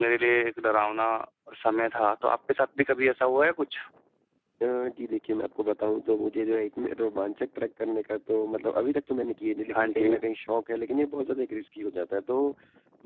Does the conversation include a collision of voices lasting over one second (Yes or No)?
No